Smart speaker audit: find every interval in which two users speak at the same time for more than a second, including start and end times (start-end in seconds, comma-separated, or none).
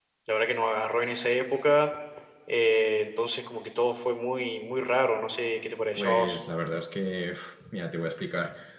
none